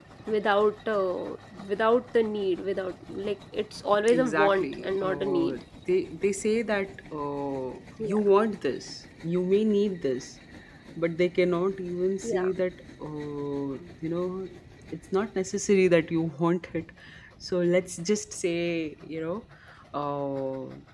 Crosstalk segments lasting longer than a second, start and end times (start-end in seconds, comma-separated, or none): 4.1-5.6